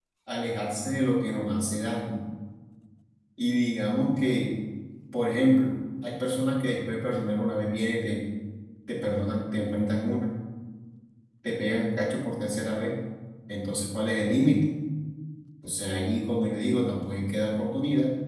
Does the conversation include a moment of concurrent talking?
No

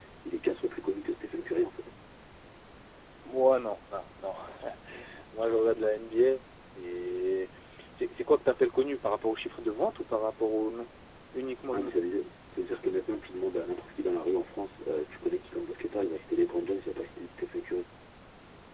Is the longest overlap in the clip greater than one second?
No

